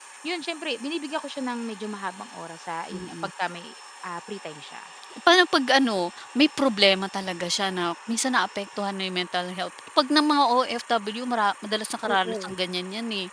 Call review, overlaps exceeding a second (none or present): none